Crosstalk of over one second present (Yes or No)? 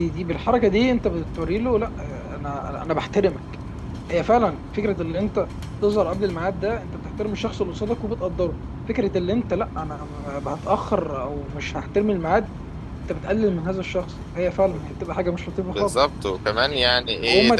No